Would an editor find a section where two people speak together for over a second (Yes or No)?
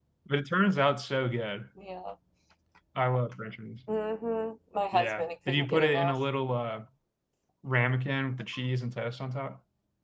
Yes